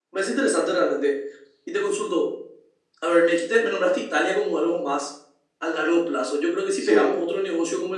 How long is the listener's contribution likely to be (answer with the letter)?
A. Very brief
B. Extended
A